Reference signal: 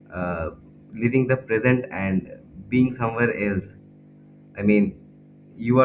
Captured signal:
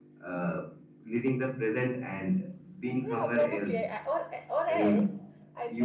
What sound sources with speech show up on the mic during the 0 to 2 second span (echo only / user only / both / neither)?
echo only